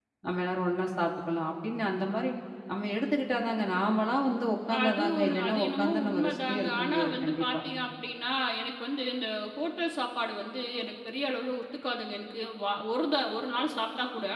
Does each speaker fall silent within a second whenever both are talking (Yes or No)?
No